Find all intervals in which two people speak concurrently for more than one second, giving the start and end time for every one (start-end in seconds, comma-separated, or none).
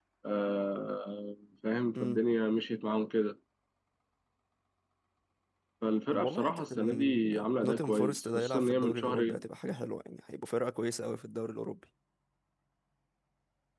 6.1-9.4